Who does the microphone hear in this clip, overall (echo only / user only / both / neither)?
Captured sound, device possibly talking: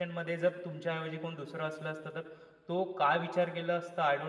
user only